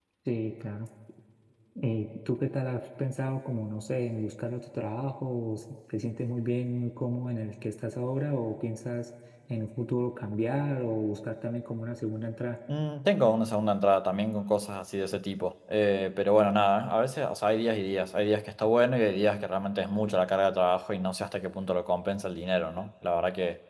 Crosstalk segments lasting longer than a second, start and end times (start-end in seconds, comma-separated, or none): none